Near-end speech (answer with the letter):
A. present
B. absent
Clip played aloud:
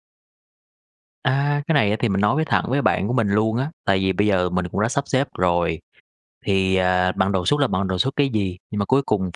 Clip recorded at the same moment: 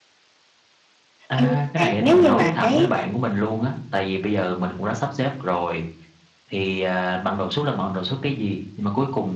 A